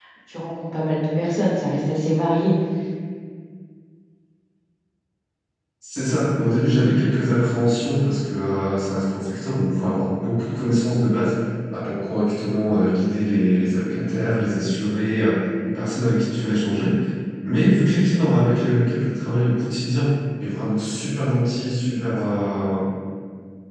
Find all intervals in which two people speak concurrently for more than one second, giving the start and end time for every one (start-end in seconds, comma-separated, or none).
none